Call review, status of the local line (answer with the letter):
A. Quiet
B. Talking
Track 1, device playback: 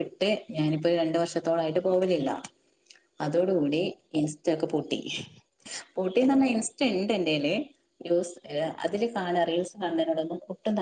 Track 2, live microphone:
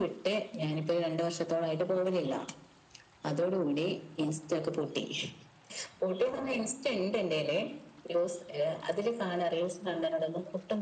A